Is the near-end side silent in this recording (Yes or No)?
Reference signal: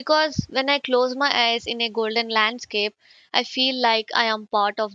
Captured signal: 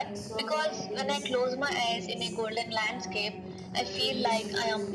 No